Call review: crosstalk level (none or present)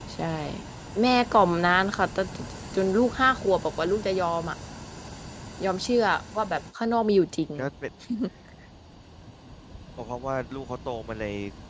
none